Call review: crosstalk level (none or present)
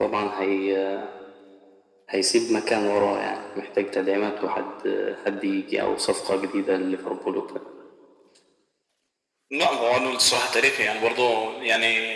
none